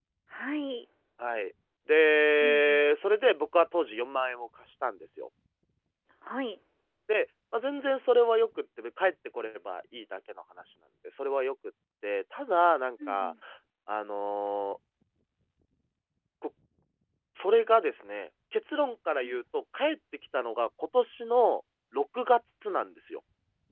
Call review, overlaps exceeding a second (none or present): none